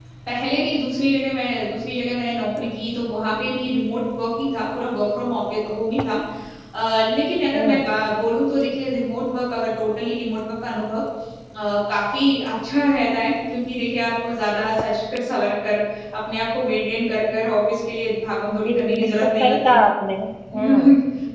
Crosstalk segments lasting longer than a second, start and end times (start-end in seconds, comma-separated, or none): 18.6-19.8